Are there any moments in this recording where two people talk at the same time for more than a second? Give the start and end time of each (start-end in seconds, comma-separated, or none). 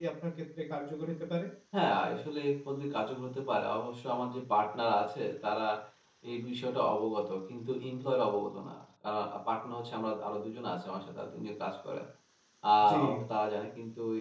none